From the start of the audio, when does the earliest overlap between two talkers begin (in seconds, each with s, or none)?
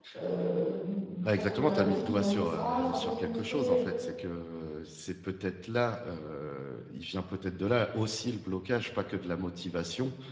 1.2 s